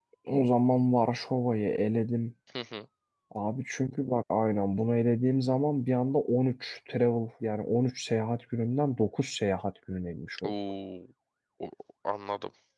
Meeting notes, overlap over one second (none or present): none